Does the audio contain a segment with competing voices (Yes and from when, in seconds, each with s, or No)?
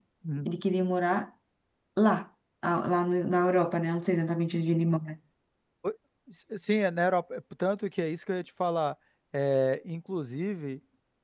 No